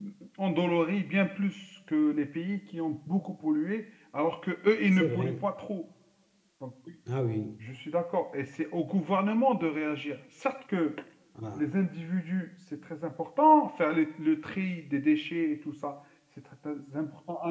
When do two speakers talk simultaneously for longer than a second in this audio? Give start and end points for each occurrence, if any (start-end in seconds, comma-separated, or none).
none